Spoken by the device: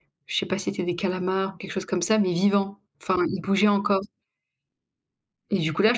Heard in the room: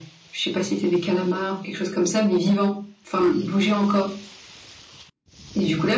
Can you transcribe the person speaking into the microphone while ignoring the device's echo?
none

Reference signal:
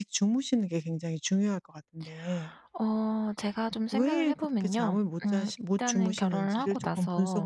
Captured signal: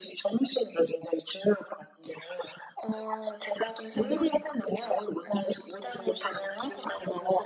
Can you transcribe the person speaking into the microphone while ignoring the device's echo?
음.

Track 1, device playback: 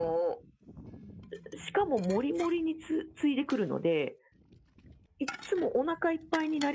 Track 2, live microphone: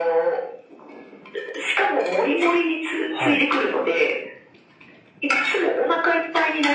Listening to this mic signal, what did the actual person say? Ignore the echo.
はい。

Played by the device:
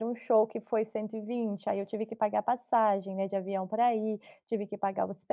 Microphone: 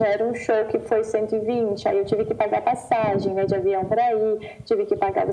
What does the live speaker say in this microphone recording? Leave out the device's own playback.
none

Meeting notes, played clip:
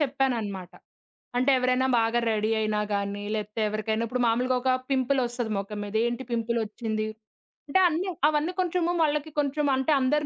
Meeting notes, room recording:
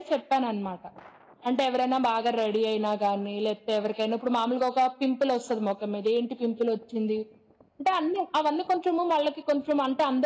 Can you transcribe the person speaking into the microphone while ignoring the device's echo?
none

